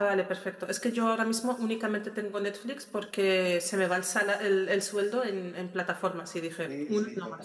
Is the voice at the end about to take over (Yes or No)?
Yes